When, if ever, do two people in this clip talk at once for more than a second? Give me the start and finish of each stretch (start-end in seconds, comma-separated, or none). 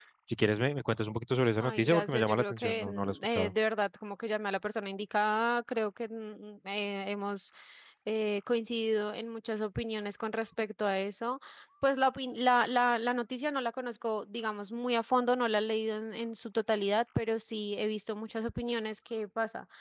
1.6-3.5